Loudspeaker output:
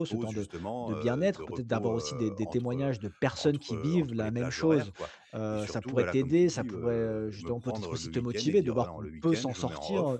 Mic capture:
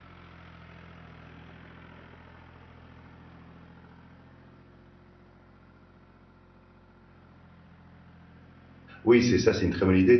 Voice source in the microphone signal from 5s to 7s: neither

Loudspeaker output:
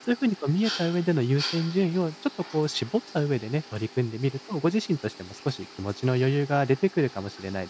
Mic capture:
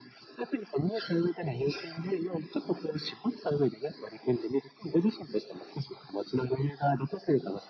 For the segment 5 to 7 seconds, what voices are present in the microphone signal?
echo only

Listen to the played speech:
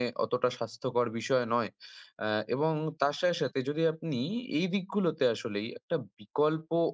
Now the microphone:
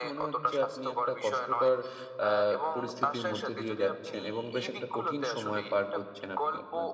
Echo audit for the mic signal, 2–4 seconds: both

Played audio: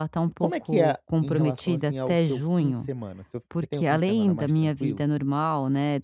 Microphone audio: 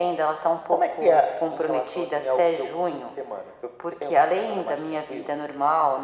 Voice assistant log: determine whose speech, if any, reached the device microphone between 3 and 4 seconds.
echo only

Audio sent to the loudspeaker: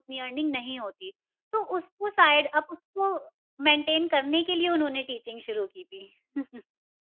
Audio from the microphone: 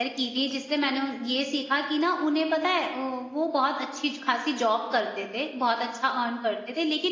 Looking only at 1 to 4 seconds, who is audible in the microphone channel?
user only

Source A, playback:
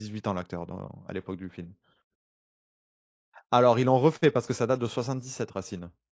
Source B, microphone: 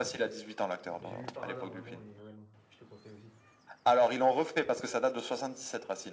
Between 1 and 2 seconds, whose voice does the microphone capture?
both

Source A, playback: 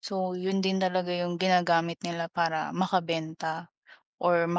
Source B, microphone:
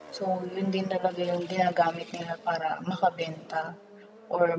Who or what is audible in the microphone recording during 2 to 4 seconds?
echo only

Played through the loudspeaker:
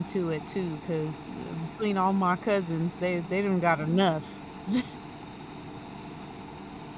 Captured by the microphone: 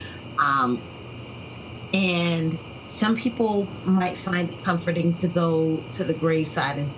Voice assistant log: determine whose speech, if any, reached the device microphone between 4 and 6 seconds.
user only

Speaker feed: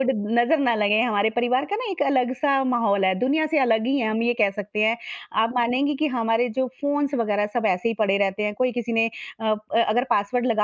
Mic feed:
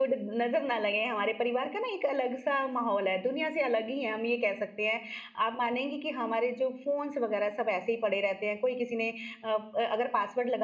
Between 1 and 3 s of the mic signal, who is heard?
echo only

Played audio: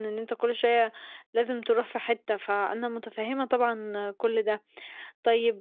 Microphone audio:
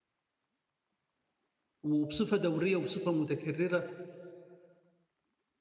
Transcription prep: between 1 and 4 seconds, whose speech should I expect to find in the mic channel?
user only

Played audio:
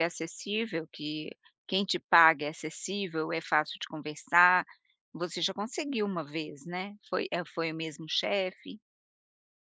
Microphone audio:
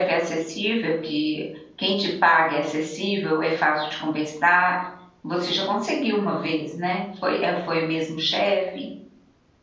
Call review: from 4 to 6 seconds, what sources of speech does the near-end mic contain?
echo only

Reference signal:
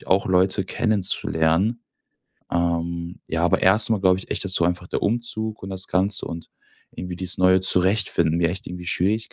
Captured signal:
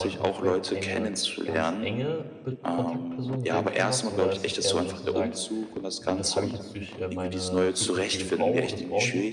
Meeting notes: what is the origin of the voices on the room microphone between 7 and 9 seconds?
both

